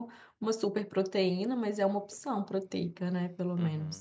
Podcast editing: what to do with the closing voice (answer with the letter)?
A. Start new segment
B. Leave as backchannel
A